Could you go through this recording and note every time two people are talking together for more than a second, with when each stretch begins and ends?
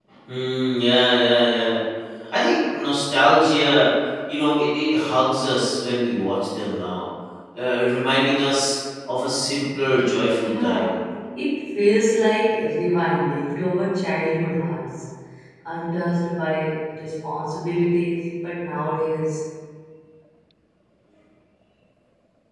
none

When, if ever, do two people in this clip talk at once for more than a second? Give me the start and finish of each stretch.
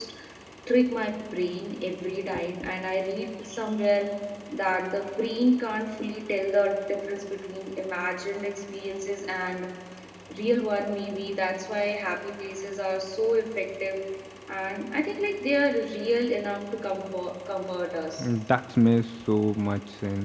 none

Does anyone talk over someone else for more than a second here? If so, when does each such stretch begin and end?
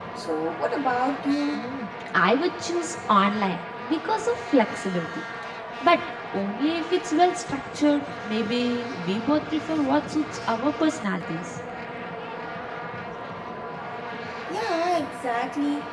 none

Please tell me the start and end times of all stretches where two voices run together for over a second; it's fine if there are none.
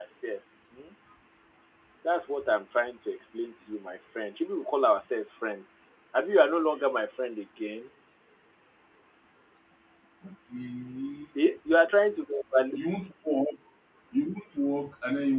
none

